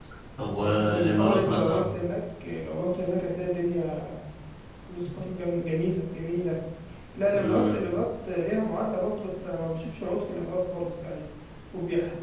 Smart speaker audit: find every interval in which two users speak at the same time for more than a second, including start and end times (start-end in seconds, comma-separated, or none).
0.6-1.8